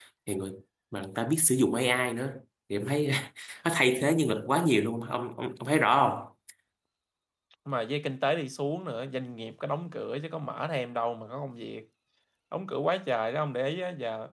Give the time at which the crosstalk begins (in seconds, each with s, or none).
none